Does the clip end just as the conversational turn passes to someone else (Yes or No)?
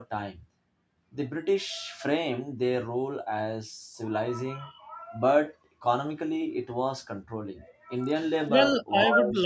Yes